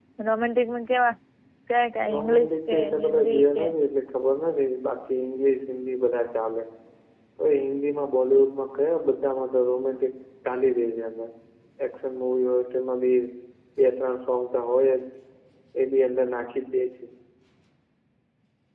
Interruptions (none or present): present